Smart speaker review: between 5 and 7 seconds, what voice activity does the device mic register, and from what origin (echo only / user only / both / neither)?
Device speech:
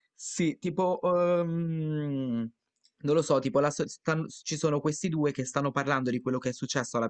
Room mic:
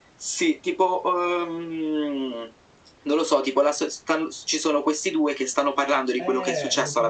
both